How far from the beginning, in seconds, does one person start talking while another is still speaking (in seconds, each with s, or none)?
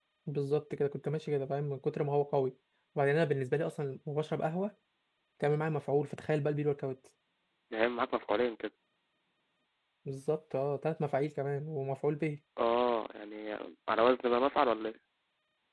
none